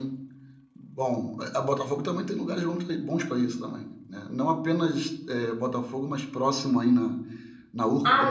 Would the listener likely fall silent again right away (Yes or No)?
No